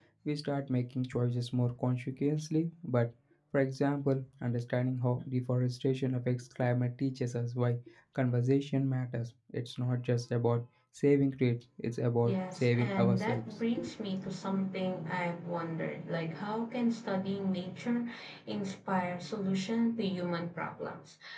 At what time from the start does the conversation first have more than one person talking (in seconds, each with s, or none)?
12.2 s